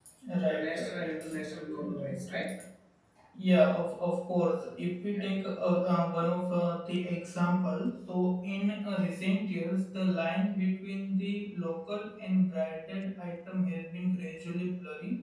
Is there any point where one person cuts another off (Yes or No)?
Yes